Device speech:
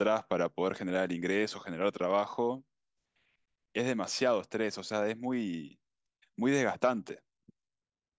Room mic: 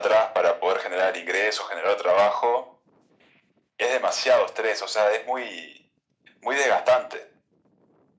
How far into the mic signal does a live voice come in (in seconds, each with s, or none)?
none